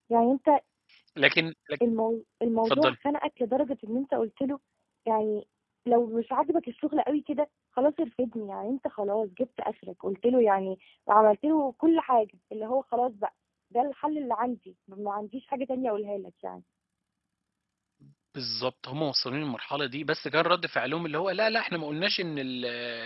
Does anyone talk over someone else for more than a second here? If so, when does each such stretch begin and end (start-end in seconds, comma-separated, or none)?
none